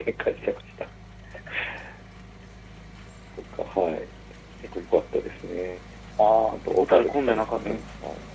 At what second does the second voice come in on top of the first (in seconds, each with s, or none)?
6.5 s